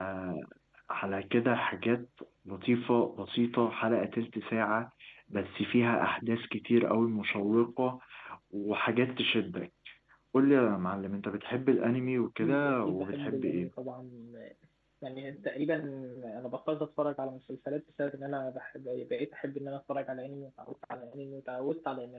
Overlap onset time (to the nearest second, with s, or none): 12 s